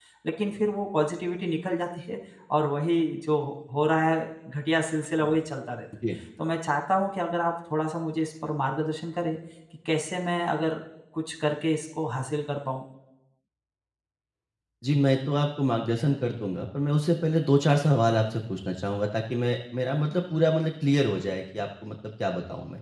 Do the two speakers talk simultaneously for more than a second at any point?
No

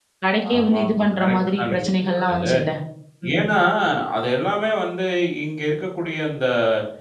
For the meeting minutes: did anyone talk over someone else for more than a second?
Yes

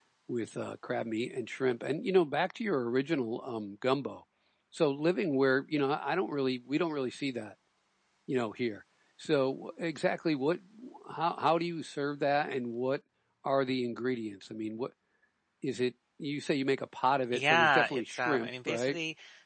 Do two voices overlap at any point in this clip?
Yes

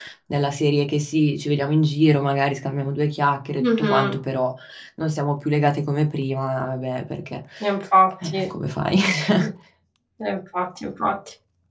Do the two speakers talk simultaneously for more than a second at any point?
No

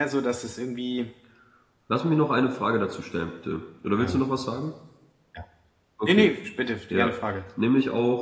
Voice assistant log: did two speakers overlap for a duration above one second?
No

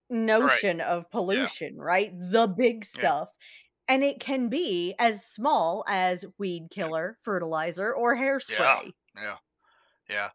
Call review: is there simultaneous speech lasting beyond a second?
No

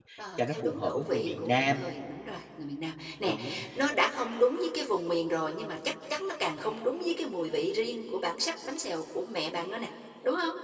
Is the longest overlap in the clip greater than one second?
Yes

